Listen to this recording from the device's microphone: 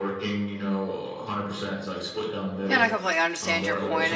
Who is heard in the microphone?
both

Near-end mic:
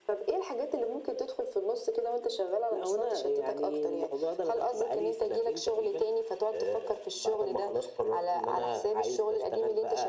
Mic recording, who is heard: echo only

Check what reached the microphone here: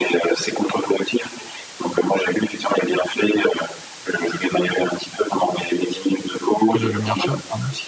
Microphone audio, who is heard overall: both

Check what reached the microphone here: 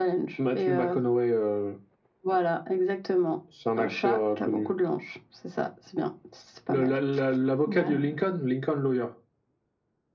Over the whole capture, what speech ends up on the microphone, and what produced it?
both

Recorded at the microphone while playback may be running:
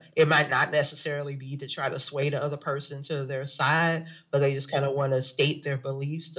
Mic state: echo only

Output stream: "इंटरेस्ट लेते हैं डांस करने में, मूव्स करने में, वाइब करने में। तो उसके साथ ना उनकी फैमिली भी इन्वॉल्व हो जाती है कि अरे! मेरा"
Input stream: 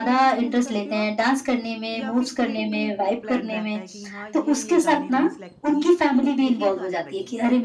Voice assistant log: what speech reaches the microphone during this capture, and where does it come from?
both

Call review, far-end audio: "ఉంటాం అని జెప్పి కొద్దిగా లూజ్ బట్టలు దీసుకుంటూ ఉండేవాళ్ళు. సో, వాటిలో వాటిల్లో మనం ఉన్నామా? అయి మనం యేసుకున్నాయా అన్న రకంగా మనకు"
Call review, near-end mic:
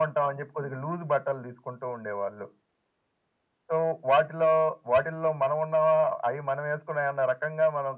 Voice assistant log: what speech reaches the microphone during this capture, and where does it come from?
echo only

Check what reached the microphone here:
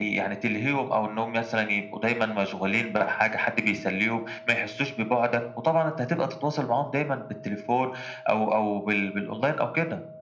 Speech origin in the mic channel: echo only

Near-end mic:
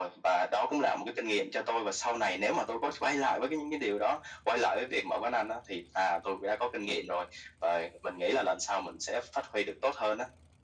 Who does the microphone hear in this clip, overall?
echo only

